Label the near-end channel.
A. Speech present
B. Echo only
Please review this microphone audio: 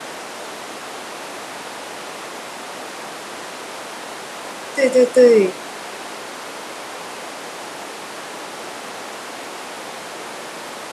A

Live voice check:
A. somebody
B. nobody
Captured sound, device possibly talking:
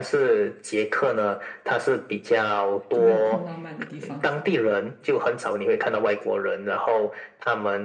A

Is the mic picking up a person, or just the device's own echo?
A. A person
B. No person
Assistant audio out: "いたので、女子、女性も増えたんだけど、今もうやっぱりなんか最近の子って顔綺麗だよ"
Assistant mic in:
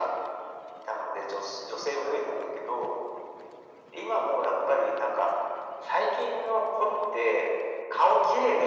B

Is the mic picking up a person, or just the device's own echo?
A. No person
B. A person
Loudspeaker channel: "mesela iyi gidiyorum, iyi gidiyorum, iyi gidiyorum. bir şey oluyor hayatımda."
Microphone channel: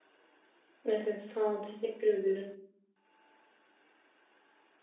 B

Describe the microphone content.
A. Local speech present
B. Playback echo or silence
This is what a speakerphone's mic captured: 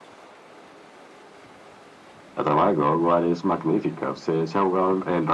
B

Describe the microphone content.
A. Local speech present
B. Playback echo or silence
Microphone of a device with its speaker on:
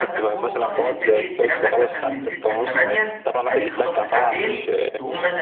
A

